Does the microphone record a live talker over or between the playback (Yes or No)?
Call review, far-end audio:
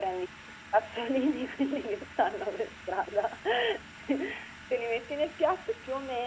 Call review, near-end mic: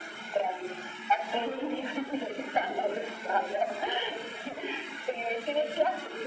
No